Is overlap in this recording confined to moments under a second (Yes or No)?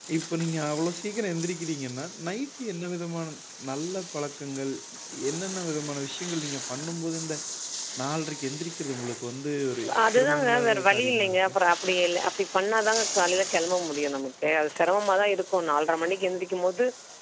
No